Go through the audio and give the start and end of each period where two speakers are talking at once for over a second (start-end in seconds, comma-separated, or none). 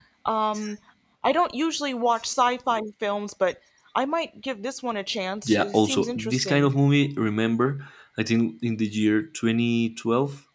5.5-6.7